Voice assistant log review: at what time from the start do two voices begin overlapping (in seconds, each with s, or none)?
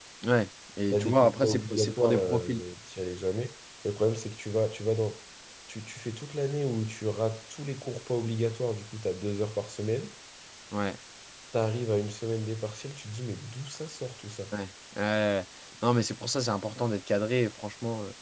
0.9 s